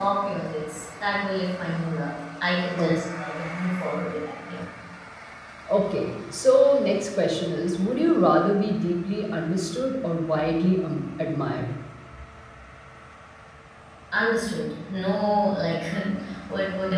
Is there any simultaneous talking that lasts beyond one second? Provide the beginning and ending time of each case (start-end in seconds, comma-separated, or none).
none